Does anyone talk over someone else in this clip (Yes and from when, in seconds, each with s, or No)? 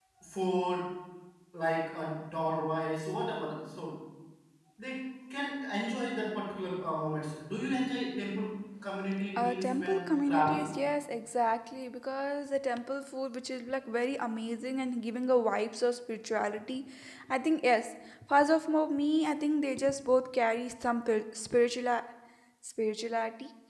Yes, from 9.4 s